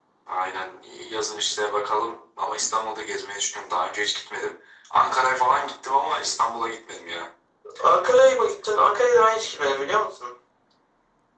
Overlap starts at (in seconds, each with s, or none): none